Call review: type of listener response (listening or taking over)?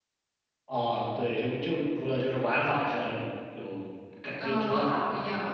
taking over